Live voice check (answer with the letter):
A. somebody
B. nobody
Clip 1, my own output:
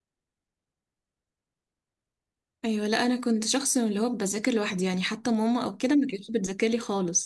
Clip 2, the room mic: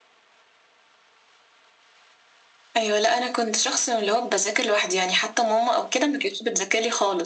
B